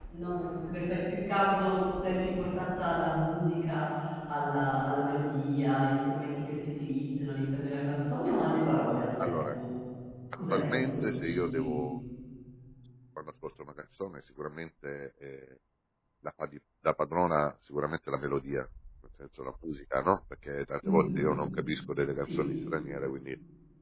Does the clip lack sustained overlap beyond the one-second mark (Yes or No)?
No